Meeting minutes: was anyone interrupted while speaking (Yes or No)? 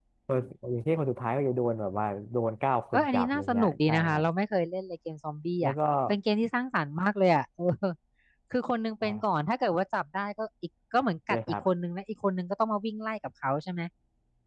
Yes